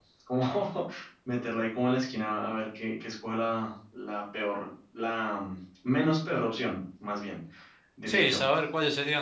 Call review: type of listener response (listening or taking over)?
taking over